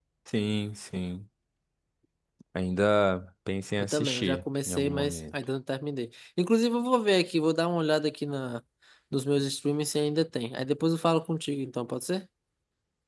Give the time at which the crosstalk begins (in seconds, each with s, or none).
3.8 s